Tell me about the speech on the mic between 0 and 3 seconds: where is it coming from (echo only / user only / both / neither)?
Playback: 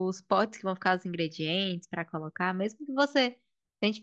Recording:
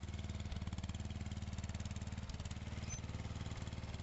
neither